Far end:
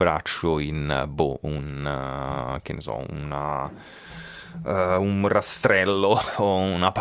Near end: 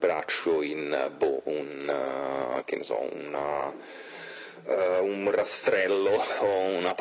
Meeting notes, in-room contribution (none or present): none